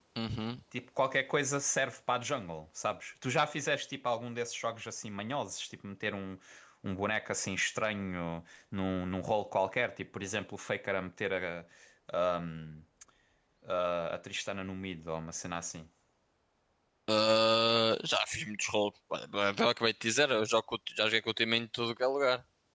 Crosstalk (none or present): none